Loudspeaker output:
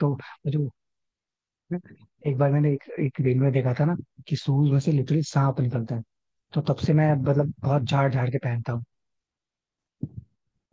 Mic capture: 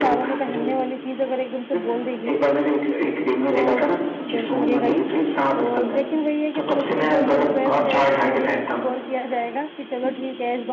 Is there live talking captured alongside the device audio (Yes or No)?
Yes